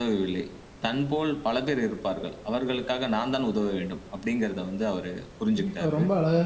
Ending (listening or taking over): taking over